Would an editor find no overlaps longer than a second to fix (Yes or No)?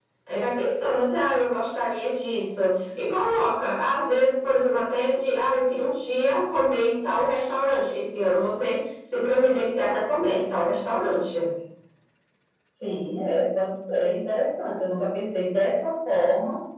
Yes